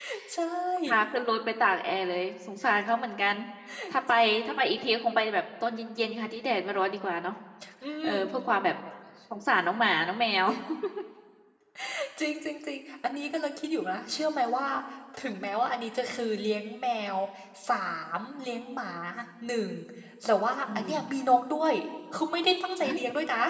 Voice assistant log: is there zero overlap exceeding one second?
Yes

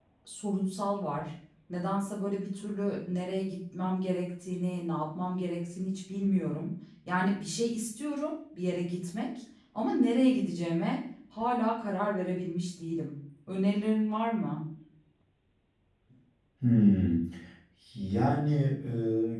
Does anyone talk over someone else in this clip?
No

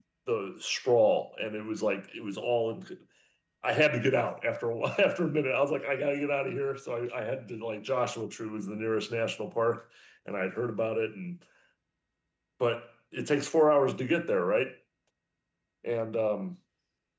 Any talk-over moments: No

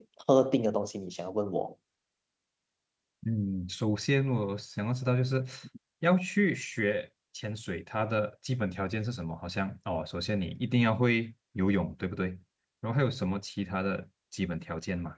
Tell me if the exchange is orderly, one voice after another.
Yes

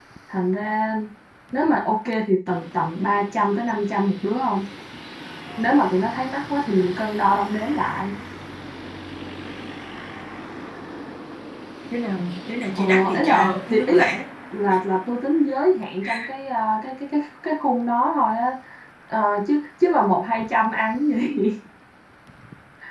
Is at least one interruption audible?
Yes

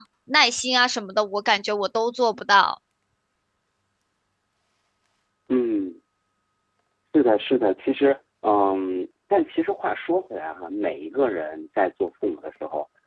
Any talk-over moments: No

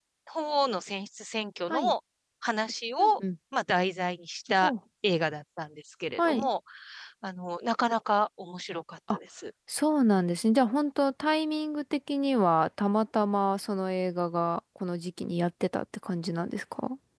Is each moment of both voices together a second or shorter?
Yes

